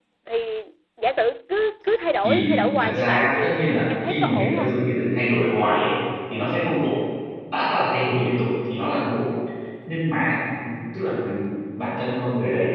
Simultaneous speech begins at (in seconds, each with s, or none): 2.2 s